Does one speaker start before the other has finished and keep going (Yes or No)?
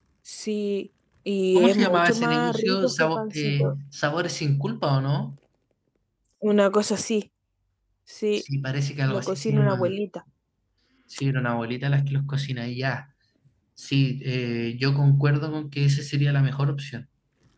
Yes